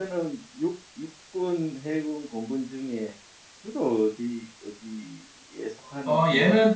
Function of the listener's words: taking over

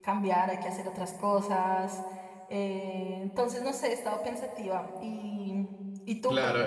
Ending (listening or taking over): taking over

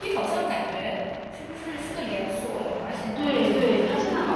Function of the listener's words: taking over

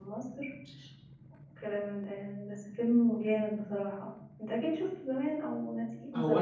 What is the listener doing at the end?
taking over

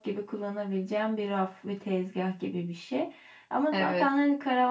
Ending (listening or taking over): listening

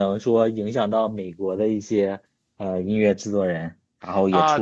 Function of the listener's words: taking over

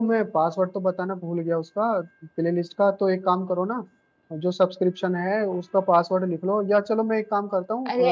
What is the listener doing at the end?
taking over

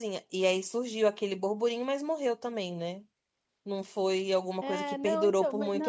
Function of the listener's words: taking over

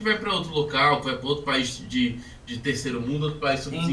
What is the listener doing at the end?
taking over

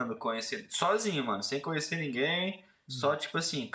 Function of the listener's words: listening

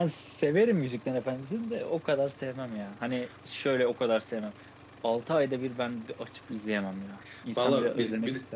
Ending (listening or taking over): taking over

